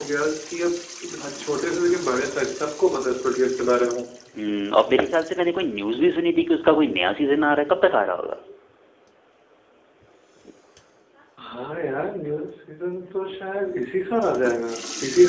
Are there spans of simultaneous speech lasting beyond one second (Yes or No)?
No